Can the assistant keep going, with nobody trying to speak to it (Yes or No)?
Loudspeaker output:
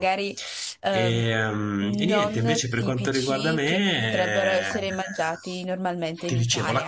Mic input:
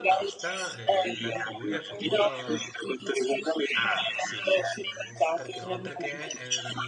No